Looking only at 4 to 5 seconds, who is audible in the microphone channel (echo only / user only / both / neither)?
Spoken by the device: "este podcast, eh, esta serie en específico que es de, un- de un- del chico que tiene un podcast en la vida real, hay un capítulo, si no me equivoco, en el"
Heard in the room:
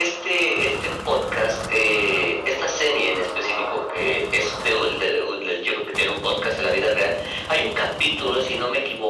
echo only